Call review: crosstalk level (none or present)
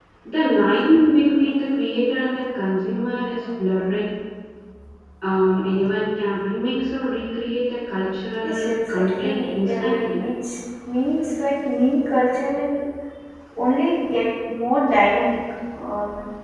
present